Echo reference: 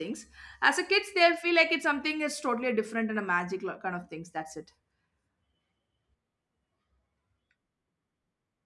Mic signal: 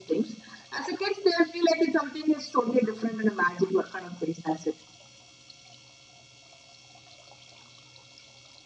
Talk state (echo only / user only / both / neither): echo only